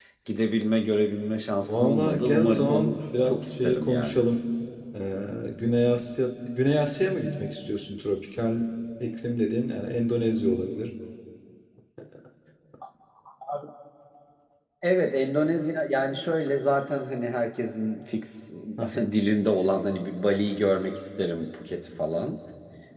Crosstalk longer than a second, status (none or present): present